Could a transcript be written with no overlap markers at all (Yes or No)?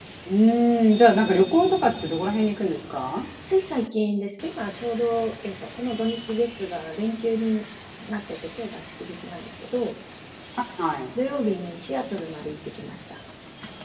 Yes